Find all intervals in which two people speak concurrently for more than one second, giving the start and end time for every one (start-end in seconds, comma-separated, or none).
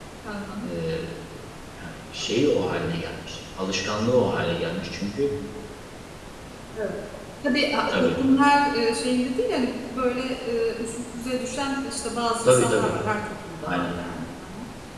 none